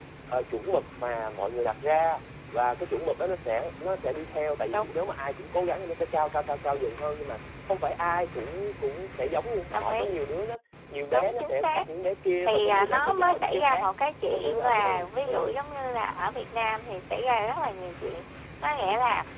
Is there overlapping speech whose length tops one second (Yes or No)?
Yes